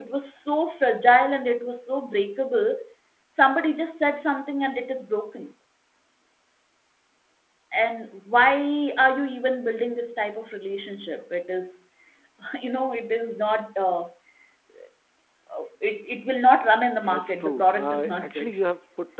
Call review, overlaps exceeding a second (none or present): present